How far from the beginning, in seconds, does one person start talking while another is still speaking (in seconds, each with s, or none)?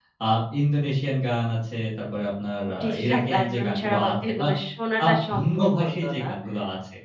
2.8 s